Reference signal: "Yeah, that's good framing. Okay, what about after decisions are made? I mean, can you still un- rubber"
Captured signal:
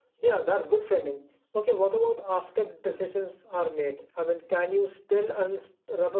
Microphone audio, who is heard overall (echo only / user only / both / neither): echo only